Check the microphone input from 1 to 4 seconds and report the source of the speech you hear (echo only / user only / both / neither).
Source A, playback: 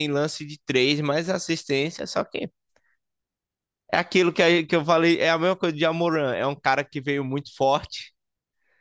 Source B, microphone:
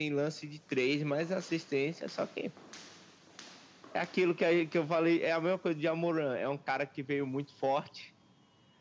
echo only